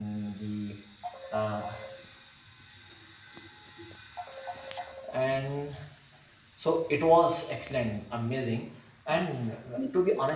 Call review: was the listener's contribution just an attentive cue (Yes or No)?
Yes